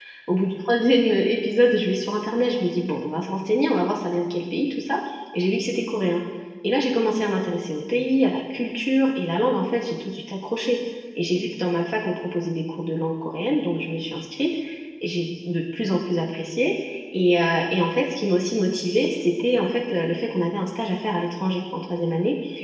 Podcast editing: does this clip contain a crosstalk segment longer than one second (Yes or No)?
No